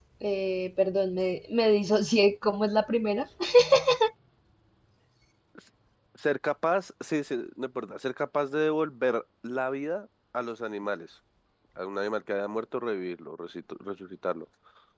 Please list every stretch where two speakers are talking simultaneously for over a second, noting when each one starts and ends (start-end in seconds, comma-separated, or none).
none